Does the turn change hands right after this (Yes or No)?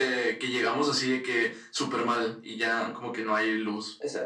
Yes